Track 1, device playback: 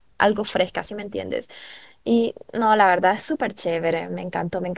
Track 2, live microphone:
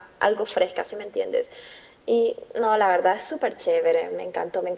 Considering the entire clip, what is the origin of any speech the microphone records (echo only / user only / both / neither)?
echo only